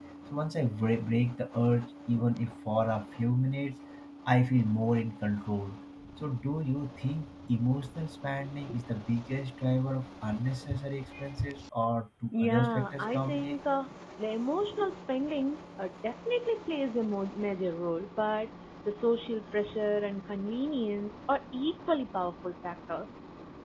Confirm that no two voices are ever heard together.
No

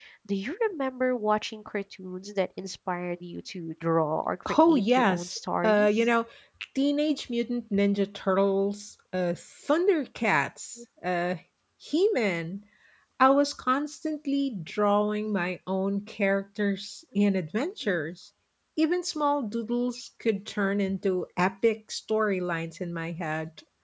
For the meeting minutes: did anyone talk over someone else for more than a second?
Yes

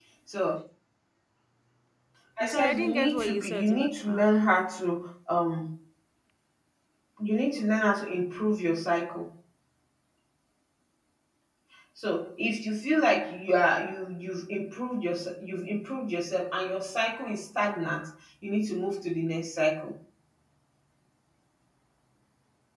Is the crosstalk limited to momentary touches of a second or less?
No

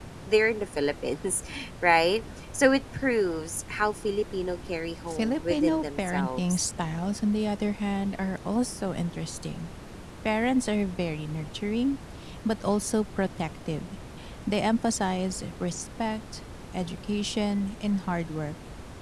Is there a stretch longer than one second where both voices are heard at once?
Yes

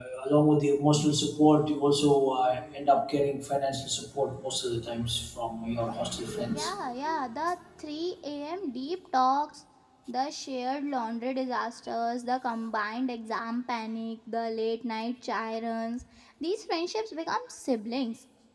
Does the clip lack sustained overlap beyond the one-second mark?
Yes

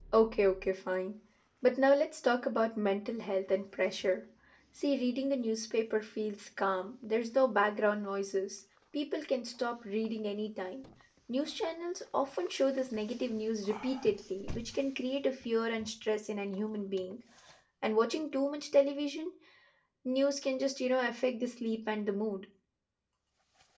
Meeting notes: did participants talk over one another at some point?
No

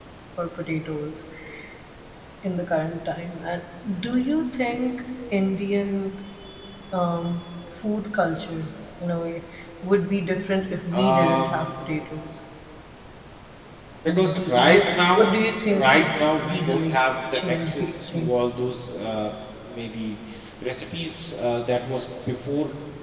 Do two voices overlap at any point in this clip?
Yes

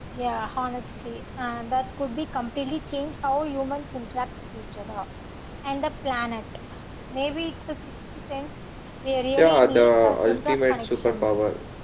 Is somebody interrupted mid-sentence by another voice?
Yes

